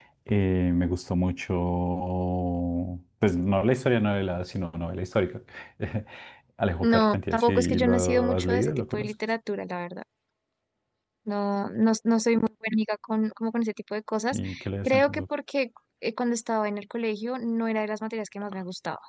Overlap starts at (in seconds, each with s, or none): 6.8 s